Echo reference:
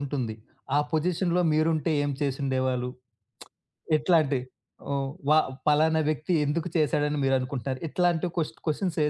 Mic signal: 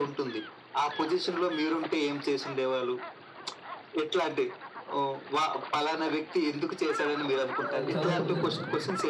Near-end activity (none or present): present